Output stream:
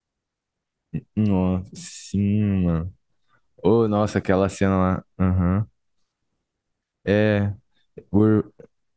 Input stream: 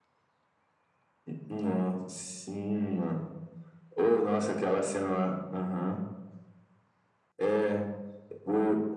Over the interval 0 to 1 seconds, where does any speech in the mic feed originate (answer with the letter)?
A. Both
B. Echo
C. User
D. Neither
D